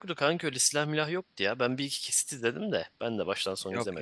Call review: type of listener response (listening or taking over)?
taking over